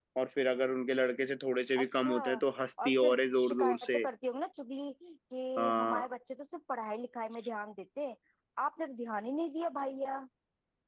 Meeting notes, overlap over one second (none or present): present